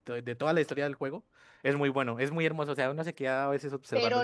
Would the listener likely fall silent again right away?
No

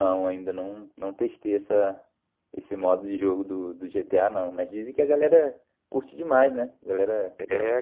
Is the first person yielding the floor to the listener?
Yes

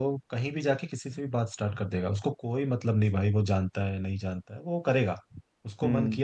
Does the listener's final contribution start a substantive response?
No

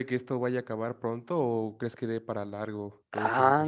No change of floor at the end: No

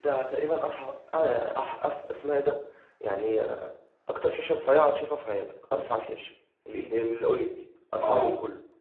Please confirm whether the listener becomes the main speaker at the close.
Yes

